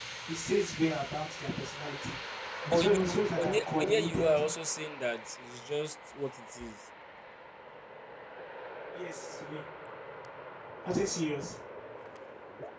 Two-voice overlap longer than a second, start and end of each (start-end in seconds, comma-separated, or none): 2.7-4.5